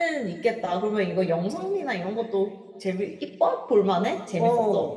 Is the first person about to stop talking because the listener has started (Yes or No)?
Yes